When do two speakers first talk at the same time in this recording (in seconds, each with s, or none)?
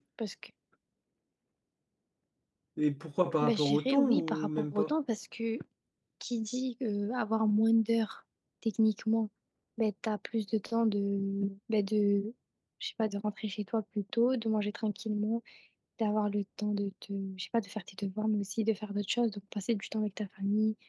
3.4 s